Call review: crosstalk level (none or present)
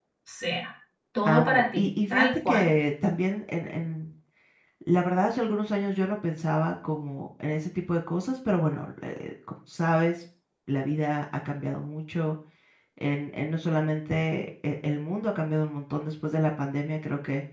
present